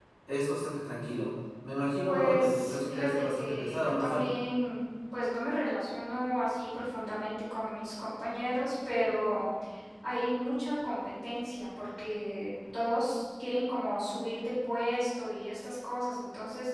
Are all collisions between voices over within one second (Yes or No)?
No